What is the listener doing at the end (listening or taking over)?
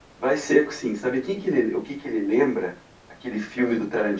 listening